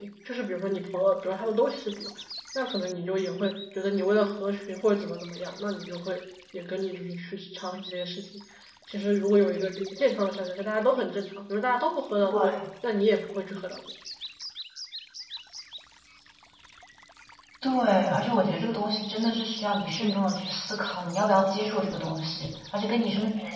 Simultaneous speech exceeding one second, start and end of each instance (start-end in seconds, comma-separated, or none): none